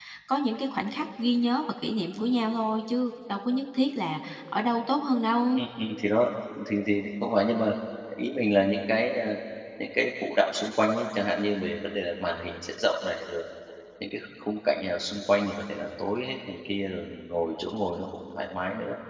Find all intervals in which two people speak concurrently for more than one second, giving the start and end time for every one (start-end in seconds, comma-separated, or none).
none